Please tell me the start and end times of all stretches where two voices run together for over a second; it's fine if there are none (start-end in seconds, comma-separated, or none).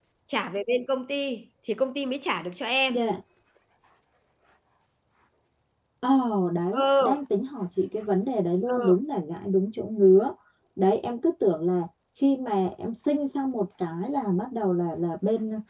none